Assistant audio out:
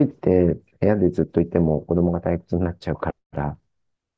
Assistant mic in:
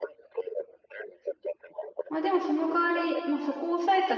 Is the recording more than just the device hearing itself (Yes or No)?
Yes